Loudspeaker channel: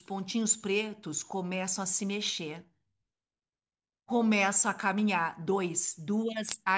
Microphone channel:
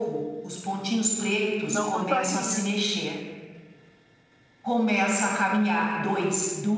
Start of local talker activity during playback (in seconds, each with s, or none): 1.6 s